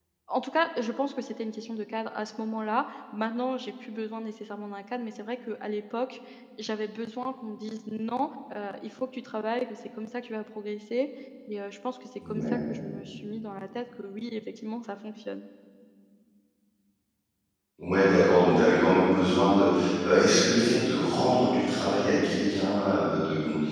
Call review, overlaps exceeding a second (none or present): none